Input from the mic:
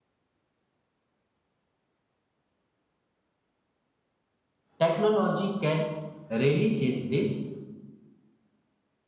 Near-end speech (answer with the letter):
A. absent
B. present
B